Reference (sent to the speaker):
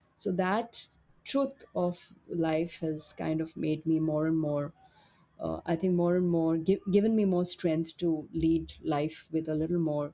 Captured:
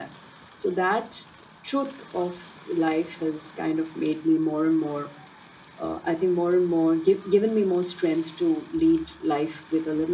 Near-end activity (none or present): none